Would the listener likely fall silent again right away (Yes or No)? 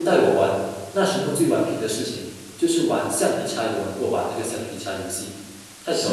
No